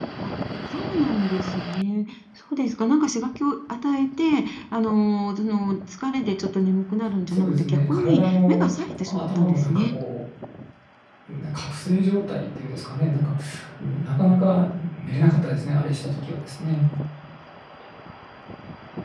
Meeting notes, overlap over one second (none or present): present